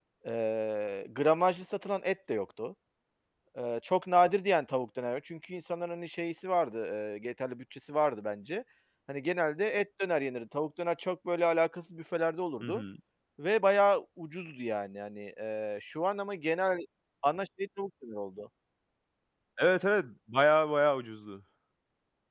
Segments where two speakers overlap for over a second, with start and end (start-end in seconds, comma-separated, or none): none